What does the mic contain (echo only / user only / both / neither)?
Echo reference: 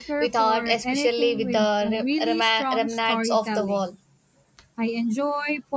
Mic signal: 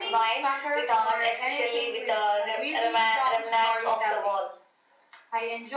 echo only